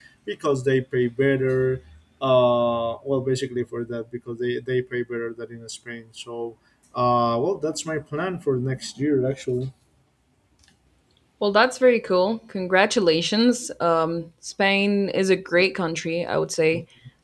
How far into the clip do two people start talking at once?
none

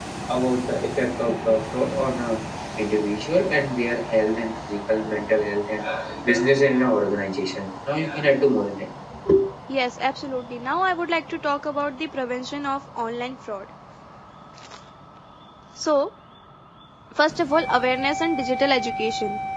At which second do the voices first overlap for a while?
none

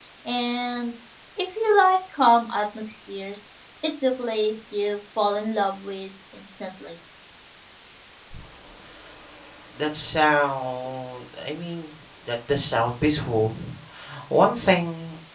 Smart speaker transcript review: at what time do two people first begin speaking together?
none

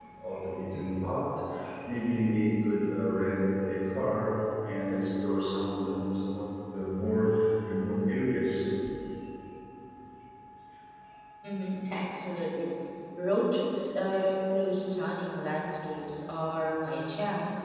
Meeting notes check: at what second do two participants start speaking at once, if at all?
none

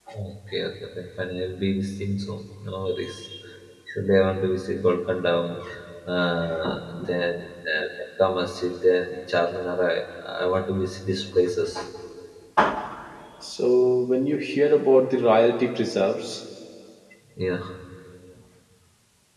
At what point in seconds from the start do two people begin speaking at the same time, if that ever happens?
none

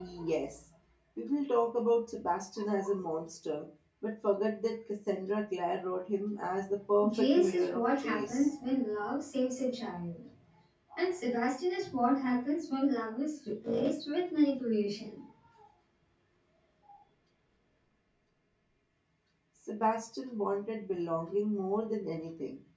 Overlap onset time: 7.0 s

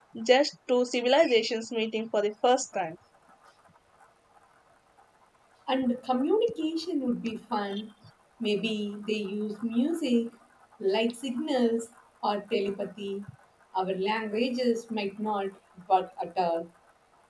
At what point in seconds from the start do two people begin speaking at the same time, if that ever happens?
none

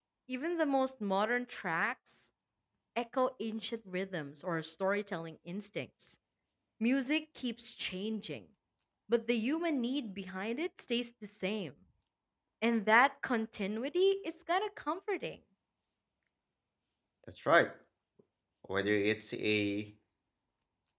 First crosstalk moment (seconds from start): none

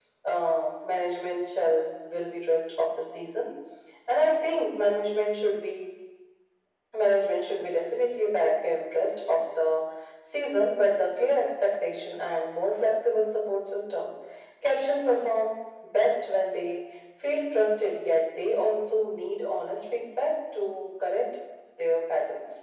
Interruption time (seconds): none

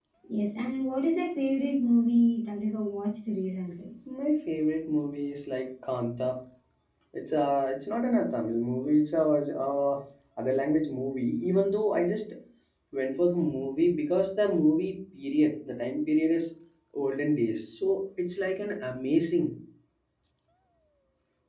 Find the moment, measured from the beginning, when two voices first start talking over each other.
none

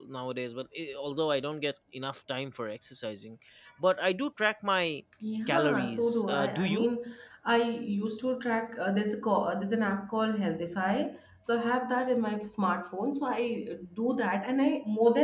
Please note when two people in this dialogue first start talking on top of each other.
5.5 s

